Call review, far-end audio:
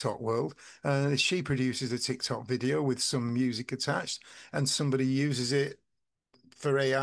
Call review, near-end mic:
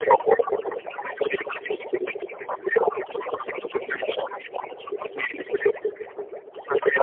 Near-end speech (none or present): none